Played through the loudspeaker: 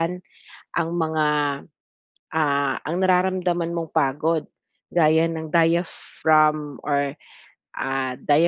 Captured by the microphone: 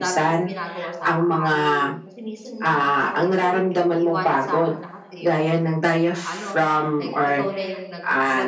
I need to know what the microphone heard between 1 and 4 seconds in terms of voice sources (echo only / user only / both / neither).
both